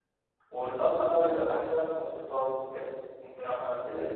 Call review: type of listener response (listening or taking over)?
taking over